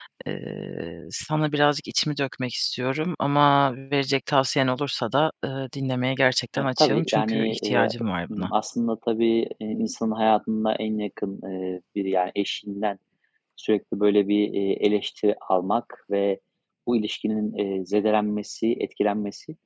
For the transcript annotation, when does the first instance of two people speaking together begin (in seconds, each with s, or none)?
6.5 s